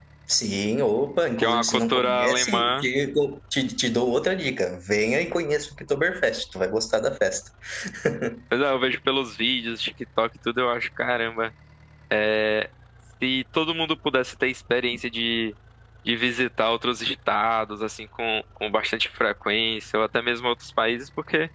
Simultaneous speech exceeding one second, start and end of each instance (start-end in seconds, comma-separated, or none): 1.4-2.9